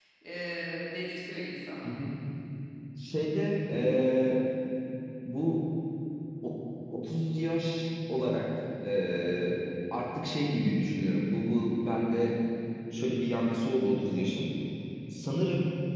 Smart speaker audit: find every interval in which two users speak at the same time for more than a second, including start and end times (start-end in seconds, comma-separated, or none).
none